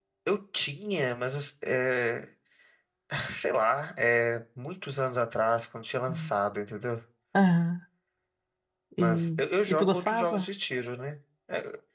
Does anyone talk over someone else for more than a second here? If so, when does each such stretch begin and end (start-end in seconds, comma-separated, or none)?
9.0-10.5